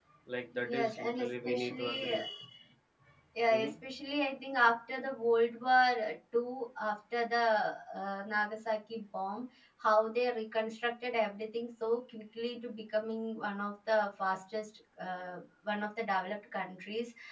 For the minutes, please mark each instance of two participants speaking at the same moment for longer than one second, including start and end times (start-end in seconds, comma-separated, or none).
0.6-2.2